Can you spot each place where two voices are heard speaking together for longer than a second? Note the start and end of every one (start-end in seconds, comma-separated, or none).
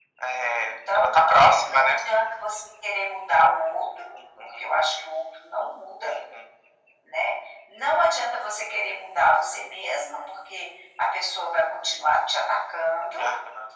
0.6-2.0